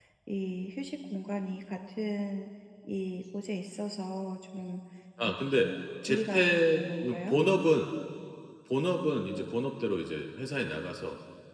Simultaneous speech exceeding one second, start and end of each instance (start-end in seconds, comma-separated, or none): 6.1-7.4